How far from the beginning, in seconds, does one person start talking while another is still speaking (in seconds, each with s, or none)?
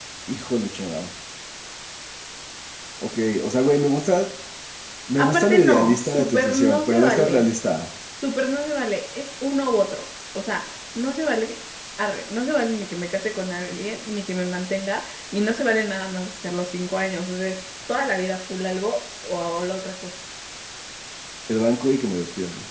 5.2 s